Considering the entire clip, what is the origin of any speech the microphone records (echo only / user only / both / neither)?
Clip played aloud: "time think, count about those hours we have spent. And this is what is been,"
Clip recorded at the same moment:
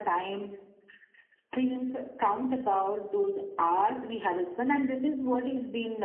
echo only